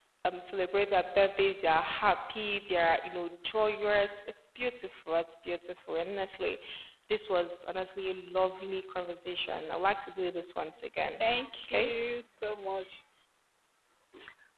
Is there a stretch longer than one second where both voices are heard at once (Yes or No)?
No